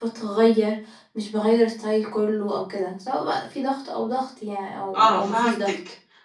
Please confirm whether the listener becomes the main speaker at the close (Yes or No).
Yes